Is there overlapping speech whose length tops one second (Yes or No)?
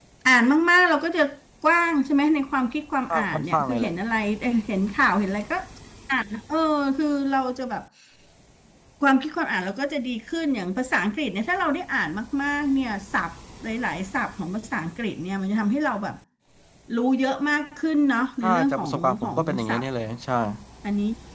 Yes